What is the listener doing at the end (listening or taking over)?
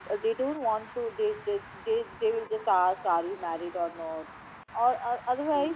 listening